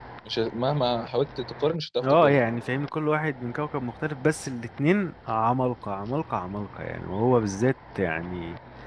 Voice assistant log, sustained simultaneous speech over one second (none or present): none